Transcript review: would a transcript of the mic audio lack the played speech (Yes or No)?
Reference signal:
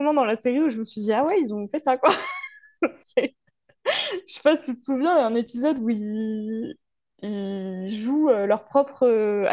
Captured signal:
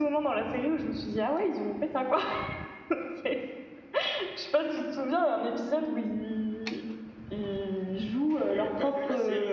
No